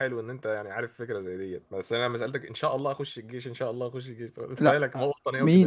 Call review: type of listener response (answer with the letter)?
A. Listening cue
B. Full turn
B